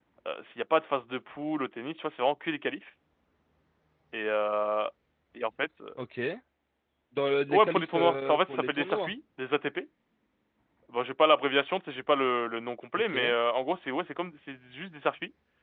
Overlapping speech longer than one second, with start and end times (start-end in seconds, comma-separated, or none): 7.5-9.1